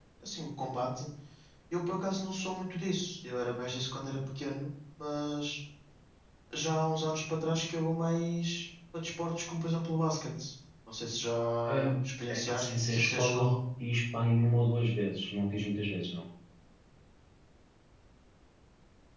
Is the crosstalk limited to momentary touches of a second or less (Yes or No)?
No